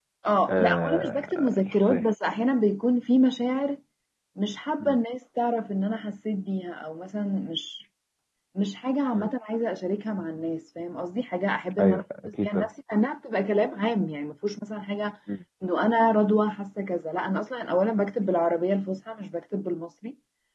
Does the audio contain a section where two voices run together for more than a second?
Yes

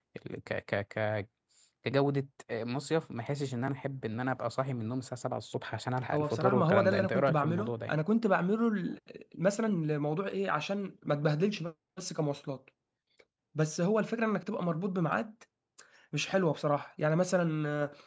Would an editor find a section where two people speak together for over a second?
Yes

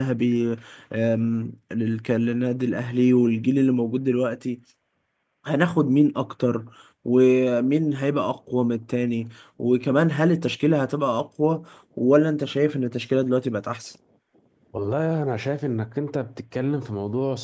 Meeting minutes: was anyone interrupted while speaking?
No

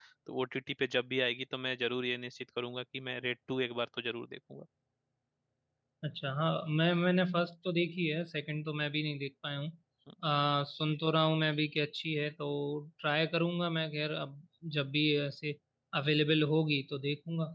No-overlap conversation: Yes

